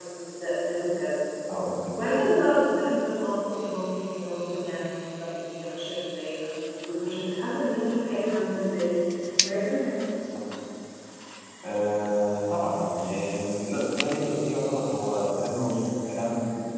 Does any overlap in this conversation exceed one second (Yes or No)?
No